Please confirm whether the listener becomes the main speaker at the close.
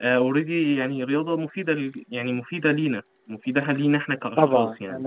Yes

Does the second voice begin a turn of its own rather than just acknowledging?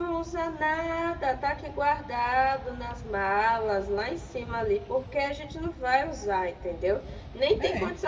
No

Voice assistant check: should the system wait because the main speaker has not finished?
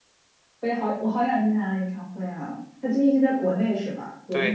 No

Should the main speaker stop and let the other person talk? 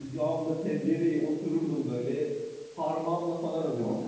No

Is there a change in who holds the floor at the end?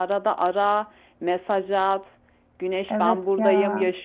No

